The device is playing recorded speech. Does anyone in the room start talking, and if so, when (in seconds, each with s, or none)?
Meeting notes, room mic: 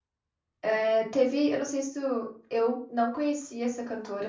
0.6 s